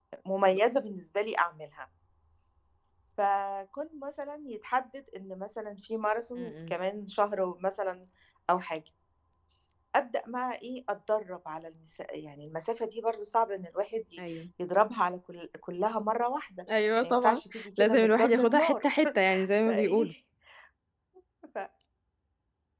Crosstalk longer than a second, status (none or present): present